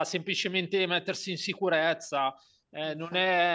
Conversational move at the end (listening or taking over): listening